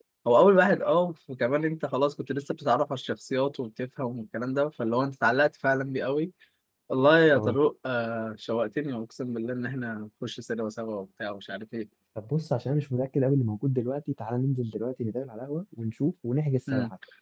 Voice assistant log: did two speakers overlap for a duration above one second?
No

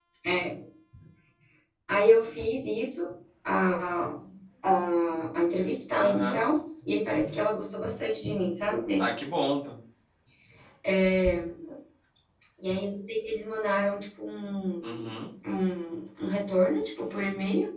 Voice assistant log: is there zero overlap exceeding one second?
Yes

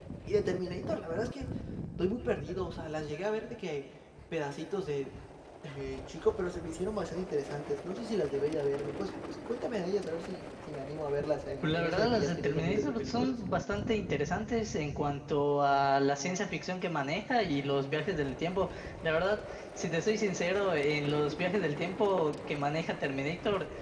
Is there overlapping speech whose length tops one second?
Yes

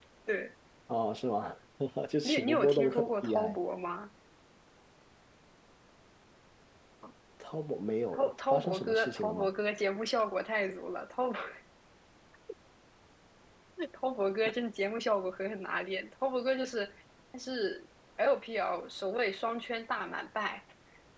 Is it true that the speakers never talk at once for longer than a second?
No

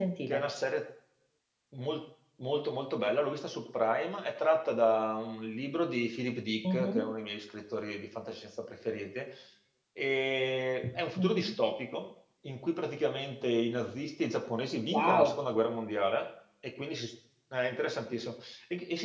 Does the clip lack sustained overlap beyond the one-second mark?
Yes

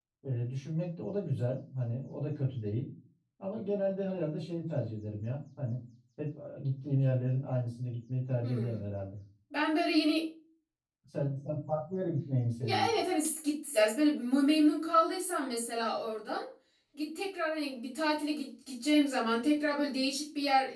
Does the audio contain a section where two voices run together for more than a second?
No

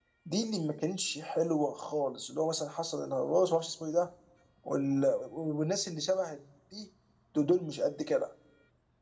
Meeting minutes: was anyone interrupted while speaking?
No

